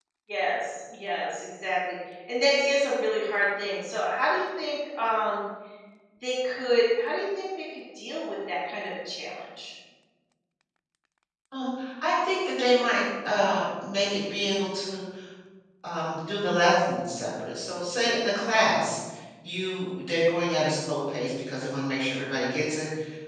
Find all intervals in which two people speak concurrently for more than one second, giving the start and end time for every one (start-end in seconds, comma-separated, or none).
none